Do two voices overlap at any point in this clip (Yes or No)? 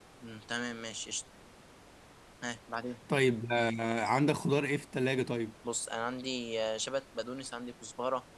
No